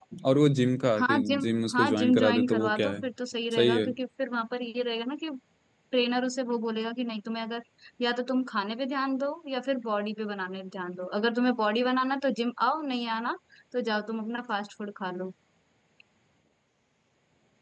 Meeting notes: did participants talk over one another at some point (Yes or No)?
Yes